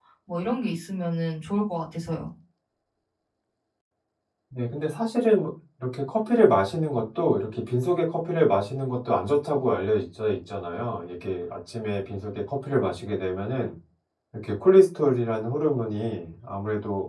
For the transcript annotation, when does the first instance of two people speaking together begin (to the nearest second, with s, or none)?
none